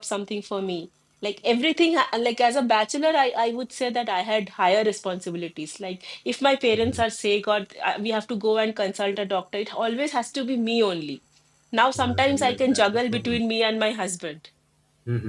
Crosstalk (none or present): present